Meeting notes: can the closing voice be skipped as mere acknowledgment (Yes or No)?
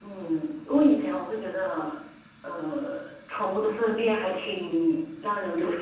Yes